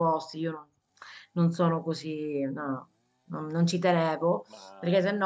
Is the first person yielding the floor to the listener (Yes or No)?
No